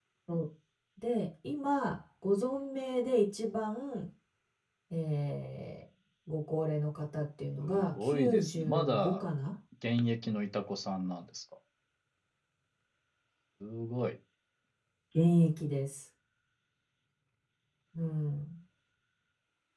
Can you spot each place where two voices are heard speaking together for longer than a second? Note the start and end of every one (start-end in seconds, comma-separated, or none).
7.6-9.2